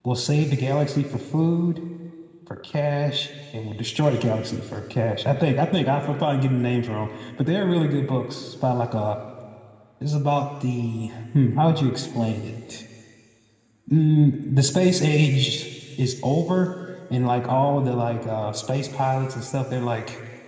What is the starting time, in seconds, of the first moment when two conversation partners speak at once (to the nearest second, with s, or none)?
none